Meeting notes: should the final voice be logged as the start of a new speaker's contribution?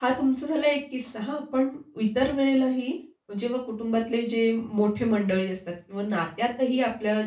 No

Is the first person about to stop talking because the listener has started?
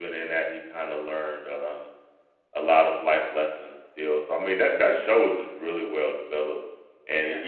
Yes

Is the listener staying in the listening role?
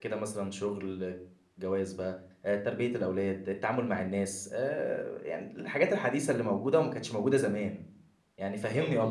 No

